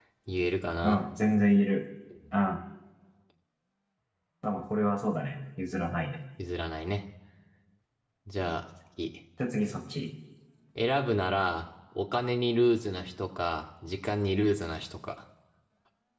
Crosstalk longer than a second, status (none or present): none